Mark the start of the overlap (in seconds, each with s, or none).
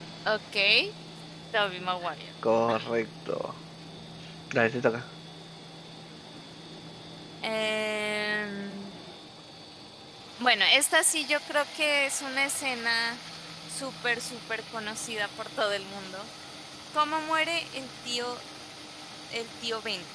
none